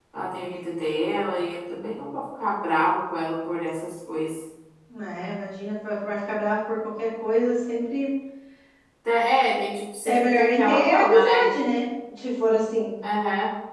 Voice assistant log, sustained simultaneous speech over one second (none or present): present